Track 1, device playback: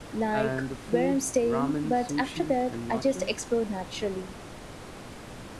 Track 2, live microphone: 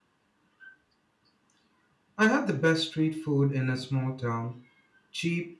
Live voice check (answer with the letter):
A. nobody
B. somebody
B